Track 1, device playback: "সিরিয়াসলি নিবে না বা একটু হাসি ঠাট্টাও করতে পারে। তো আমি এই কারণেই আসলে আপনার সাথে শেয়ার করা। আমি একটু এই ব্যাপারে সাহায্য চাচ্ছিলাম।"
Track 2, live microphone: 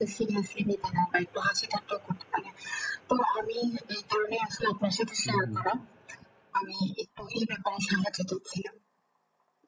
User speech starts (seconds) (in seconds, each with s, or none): 5.2 s